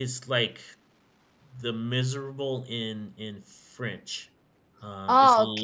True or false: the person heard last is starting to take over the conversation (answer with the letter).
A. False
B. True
B